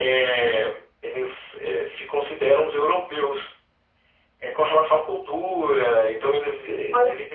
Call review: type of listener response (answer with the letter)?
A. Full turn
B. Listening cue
A